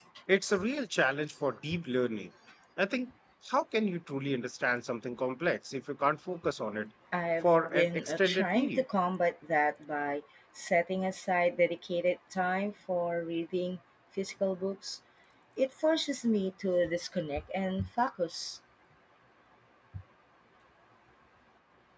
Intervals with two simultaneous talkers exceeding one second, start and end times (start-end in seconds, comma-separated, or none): 7.4-8.8